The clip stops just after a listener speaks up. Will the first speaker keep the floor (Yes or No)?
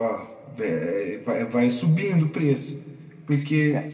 Yes